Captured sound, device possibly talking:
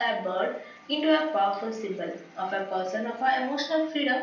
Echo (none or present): present